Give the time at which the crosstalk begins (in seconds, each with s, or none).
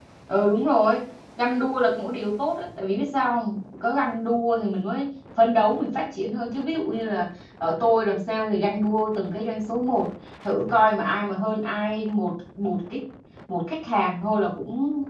none